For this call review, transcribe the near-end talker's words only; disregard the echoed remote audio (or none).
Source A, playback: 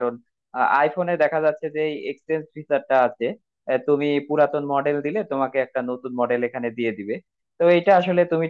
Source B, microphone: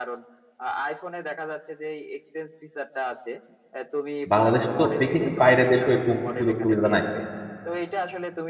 বাংলাদেশ তো দেখিনি বাইরের দেশেও এরকম সুযোগ সুবিধা নাই